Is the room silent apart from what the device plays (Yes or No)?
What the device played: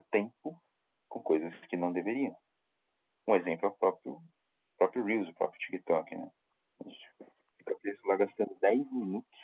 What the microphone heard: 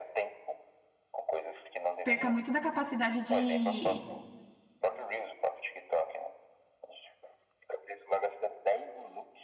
No